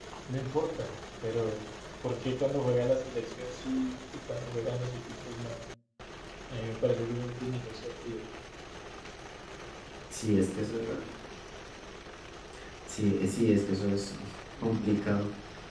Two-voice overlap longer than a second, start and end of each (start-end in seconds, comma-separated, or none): none